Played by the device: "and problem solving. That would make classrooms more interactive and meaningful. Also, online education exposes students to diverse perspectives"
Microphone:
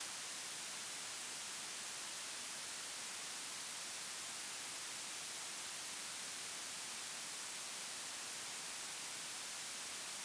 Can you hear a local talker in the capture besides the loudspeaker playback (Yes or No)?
No